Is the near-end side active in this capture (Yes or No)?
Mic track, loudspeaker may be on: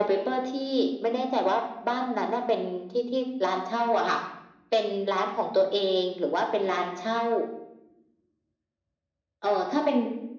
No